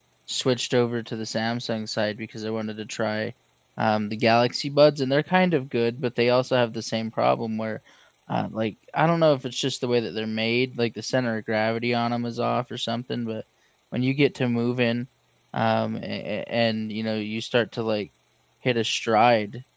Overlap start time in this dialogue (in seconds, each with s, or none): none